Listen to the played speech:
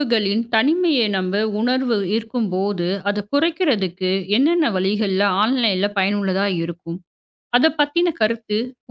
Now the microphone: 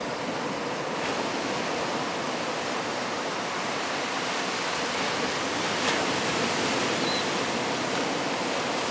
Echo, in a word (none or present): none